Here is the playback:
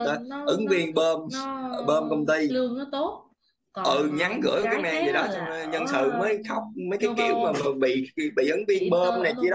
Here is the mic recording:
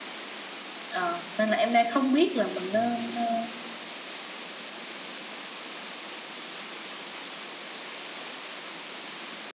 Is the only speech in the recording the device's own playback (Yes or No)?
No